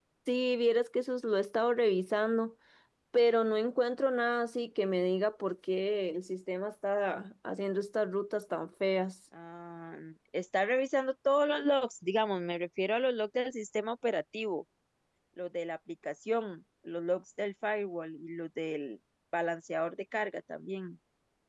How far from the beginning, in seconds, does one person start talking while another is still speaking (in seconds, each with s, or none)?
none